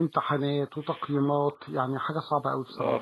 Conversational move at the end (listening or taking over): taking over